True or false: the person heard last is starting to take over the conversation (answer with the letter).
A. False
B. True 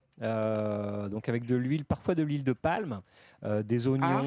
A